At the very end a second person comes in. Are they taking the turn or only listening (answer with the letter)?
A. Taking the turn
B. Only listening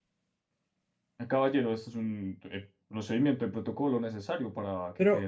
A